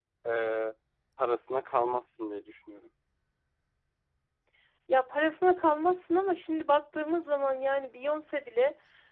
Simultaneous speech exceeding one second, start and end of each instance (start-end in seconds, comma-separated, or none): none